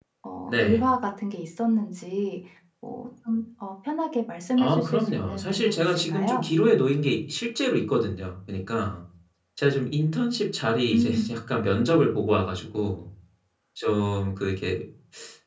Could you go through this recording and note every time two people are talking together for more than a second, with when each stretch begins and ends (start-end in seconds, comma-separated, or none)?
4.6-6.5